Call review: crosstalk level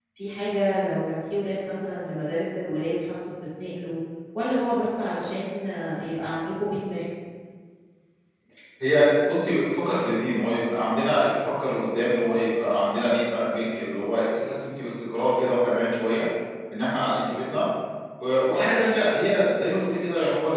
none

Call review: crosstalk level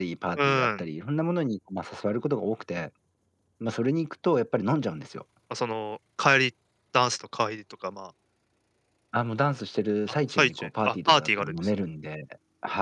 present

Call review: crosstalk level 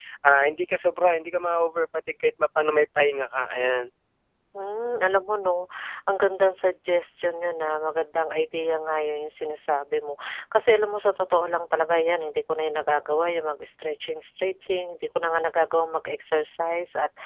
none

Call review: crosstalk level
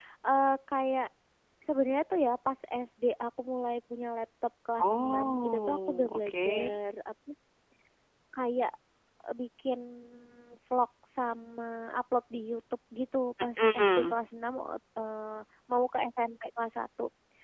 present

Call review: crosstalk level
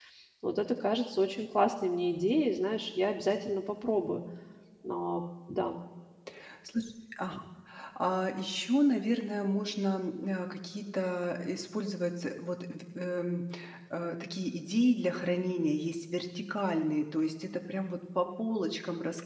none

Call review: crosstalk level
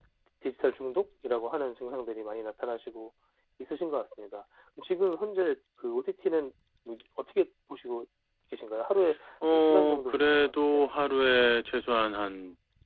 present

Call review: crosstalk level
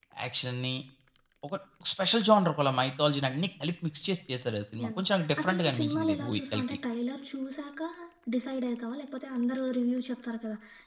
present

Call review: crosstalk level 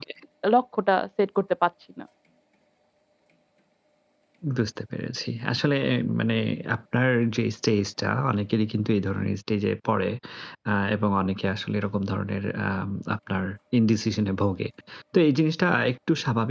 none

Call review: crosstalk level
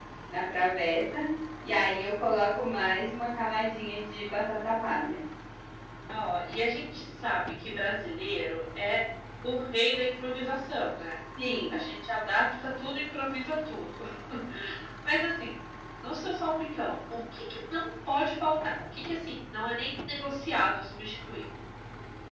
none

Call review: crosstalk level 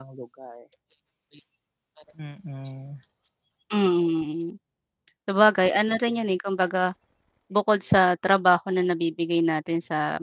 none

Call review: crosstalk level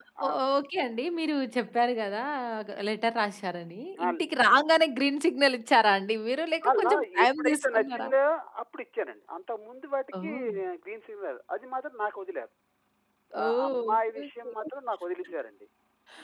present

